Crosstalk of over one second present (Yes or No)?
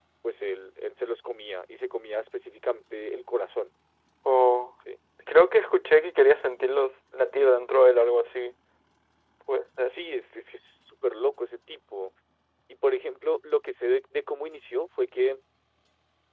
No